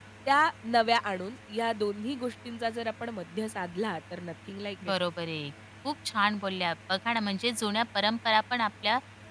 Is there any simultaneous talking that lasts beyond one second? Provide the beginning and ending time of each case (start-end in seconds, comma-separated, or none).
none